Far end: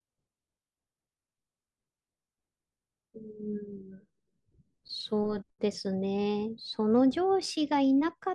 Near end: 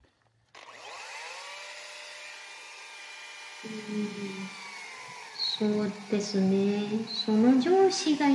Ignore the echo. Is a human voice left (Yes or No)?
No